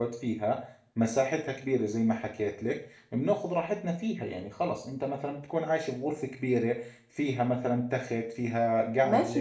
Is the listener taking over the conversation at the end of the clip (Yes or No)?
Yes